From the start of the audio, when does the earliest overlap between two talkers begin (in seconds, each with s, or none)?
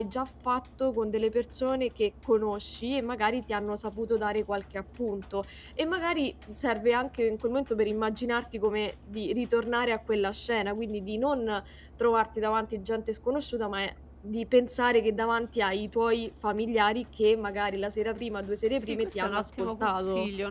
18.8 s